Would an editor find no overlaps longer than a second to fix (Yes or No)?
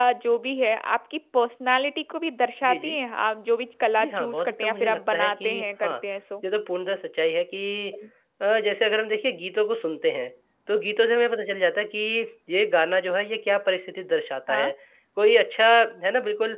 No